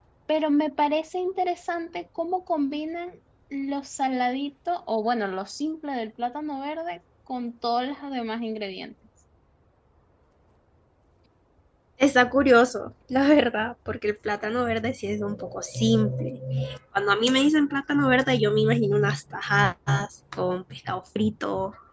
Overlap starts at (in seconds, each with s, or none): none